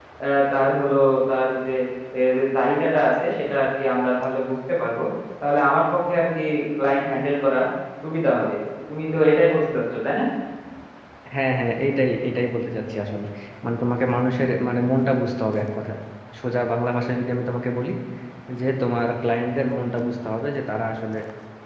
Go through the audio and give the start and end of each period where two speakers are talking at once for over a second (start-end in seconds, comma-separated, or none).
none